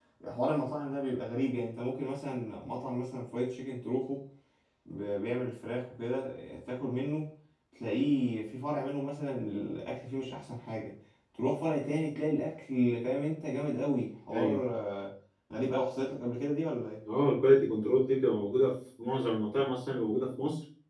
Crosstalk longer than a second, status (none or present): none